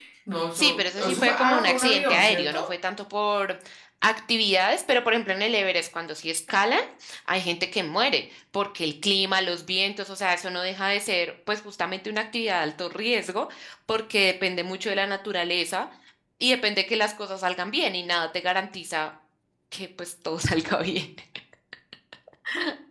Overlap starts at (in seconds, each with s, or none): 0.5 s